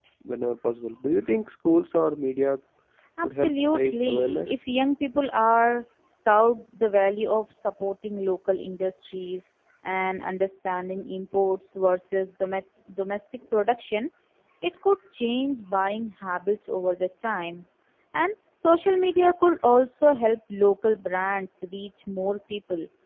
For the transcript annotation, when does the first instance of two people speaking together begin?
3.2 s

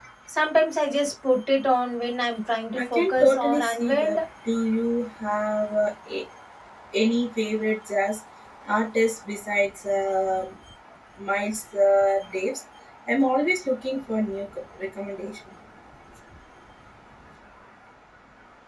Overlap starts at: 2.8 s

